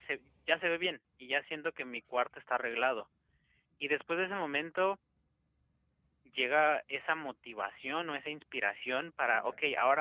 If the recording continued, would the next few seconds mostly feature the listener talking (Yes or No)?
No